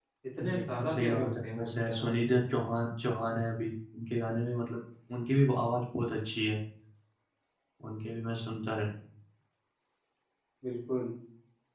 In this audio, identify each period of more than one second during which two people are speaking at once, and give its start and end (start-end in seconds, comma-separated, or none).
0.6-2.1